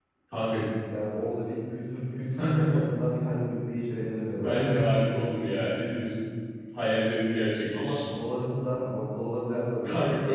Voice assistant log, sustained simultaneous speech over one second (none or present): none